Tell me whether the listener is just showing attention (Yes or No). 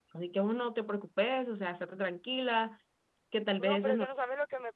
No